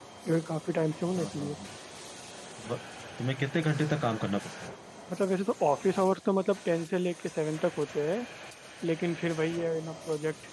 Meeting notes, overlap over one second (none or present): none